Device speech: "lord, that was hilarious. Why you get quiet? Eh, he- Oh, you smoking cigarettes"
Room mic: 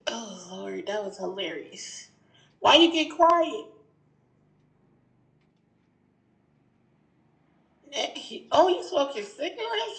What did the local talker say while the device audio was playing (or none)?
none